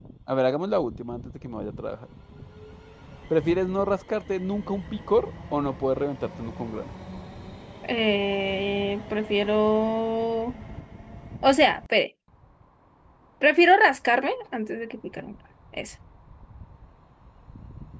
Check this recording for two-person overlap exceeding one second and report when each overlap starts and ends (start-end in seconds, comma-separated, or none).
none